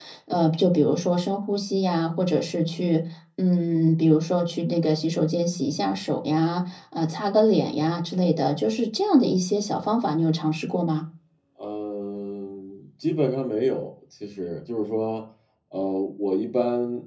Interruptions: none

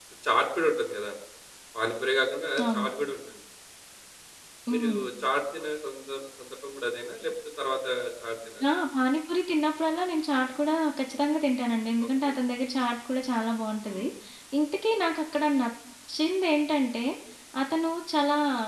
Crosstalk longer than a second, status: none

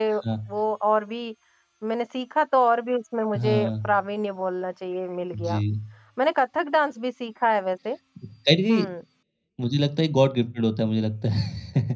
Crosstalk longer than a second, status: none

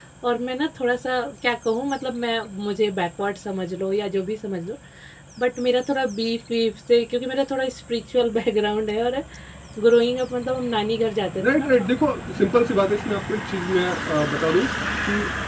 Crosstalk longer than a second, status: none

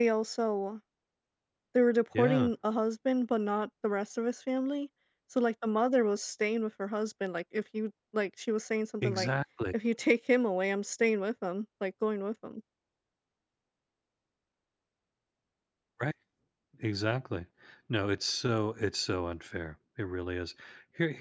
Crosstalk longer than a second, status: none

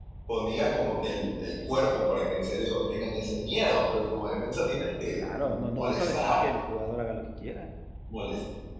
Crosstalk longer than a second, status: present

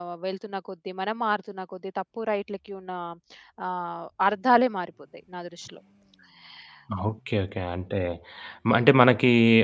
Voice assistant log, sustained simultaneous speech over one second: none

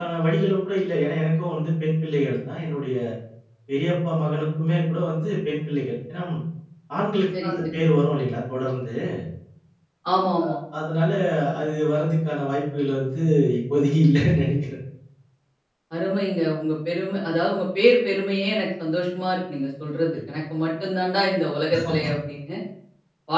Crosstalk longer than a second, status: none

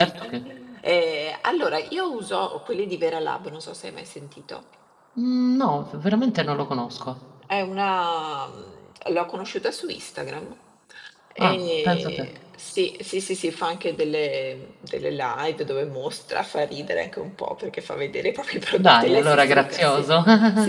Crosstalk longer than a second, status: present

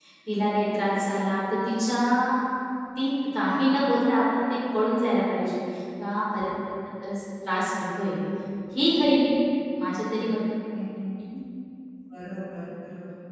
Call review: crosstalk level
none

